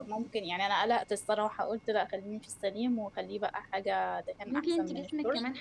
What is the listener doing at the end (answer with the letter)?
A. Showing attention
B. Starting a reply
B